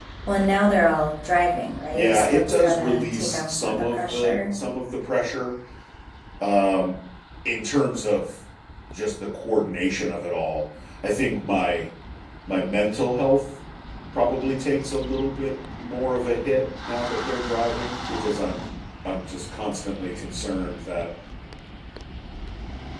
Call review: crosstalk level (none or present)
present